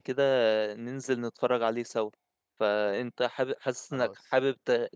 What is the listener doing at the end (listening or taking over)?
listening